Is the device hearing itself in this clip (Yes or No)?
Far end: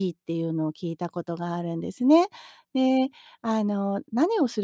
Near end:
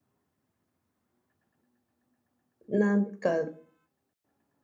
No